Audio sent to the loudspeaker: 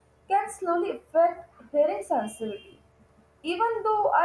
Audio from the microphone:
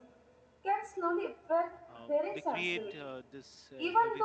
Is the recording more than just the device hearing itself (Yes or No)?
Yes